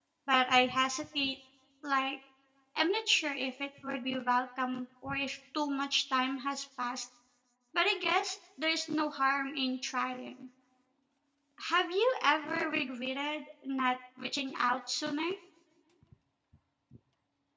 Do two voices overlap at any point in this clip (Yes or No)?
No